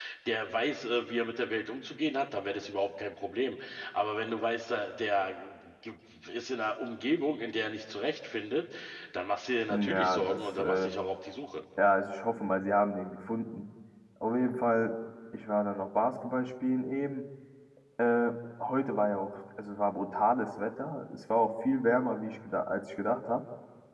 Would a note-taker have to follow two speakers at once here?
Yes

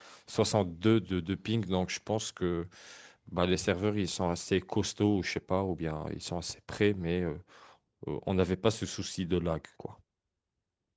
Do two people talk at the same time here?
No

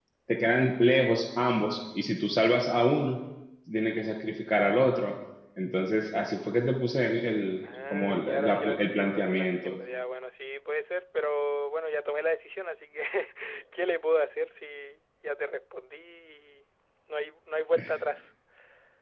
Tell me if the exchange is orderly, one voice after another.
No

